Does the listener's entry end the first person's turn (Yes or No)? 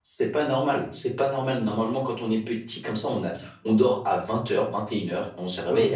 No